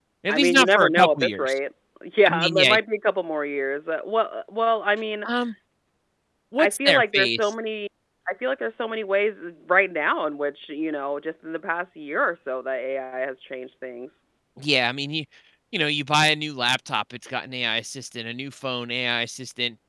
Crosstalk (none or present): present